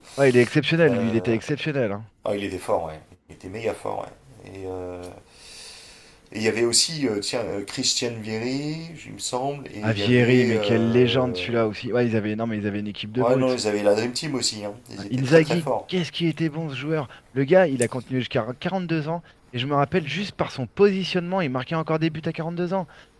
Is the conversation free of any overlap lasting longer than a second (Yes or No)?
No